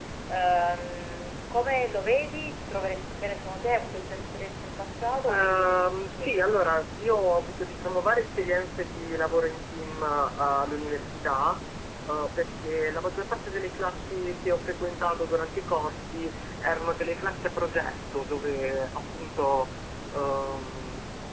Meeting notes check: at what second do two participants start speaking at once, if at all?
5.3 s

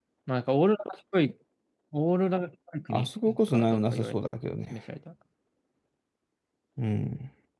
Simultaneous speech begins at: 2.9 s

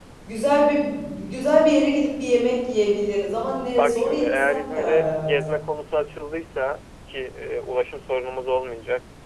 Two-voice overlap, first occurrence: 3.8 s

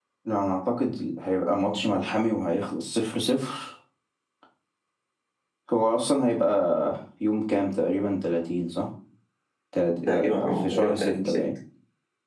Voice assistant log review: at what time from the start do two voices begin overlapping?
10.1 s

